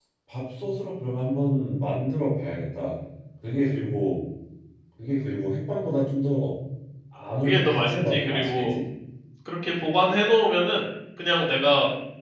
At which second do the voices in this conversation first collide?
7 s

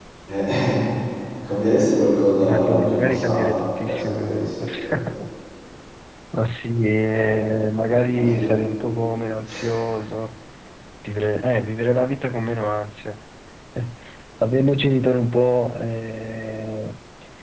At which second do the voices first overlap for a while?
2 s

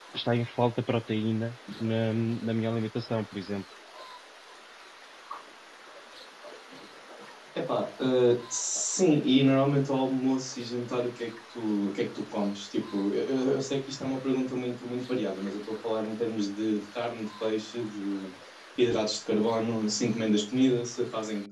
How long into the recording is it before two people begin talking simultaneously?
none

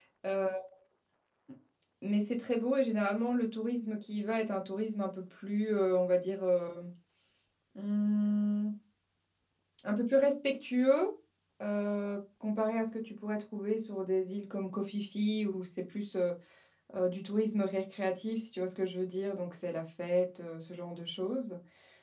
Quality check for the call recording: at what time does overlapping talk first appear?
none

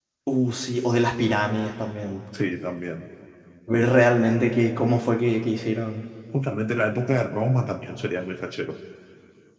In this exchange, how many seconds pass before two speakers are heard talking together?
none

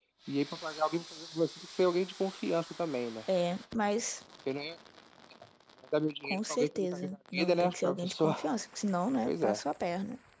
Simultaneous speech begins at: 6 s

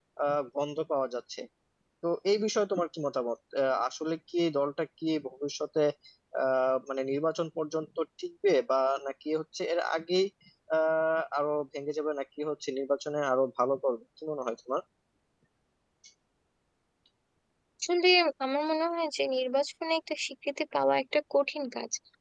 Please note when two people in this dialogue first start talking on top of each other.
none

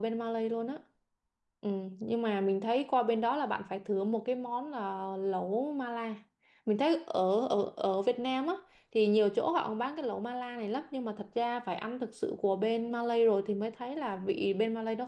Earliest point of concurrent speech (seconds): none

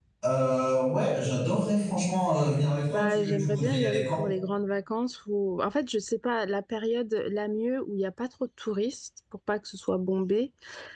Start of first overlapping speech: 3 s

